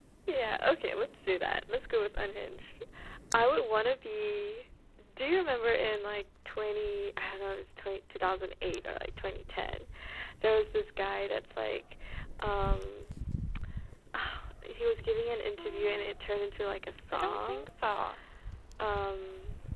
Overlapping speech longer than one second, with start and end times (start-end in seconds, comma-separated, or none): none